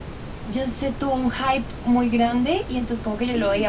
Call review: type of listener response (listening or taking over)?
listening